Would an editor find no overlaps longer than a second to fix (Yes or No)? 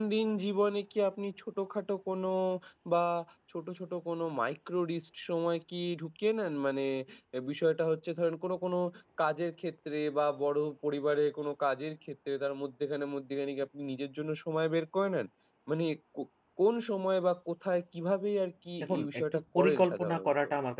No